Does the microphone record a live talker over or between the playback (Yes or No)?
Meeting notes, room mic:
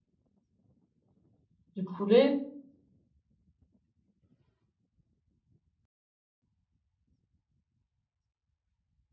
Yes